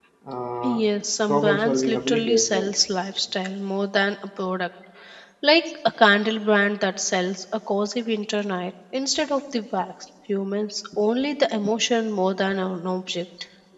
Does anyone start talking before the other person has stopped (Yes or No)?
Yes